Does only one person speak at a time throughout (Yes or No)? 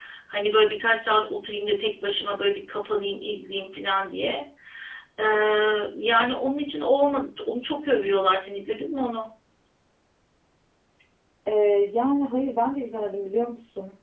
Yes